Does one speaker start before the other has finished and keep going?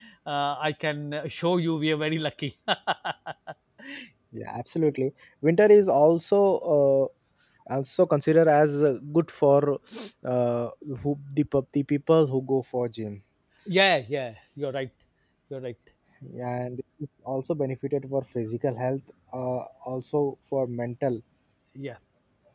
No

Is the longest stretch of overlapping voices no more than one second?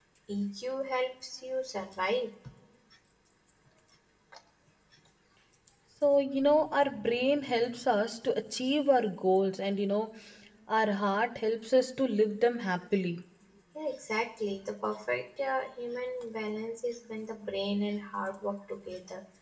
Yes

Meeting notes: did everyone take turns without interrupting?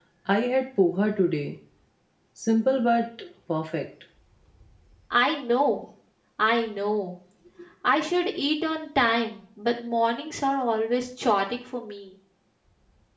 Yes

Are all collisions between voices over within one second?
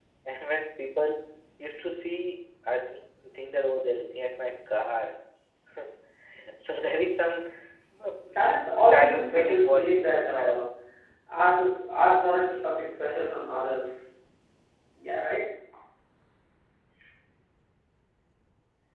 No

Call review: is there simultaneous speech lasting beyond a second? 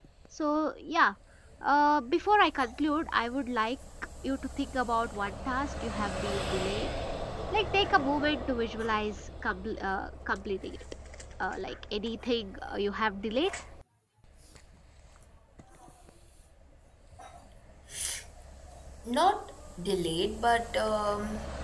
No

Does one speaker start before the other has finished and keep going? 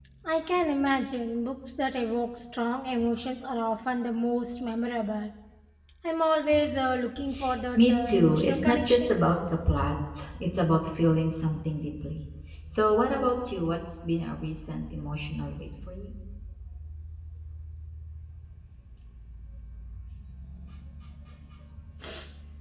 Yes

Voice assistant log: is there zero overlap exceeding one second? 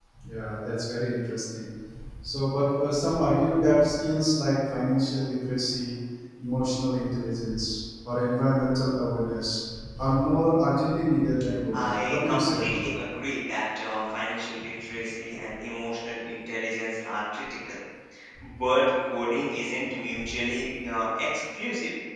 No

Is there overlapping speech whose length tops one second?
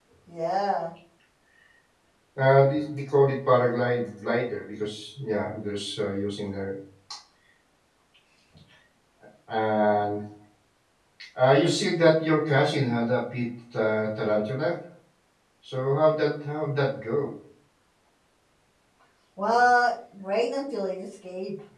No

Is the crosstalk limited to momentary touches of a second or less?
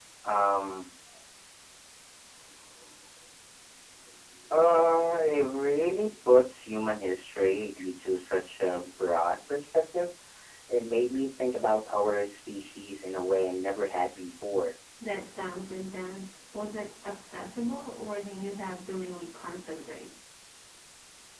Yes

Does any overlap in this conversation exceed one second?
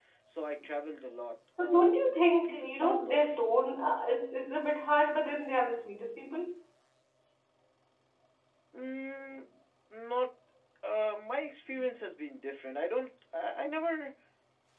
Yes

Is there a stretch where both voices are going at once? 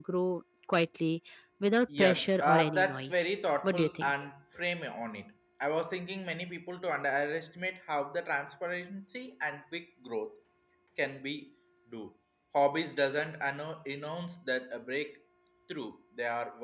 Yes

